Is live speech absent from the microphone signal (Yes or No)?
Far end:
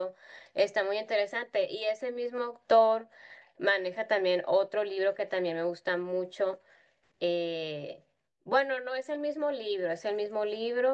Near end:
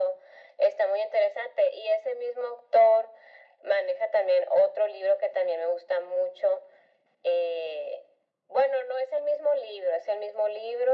Yes